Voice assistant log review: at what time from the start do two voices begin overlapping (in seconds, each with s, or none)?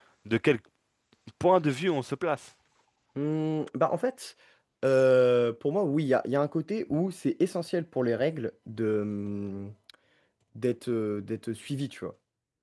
none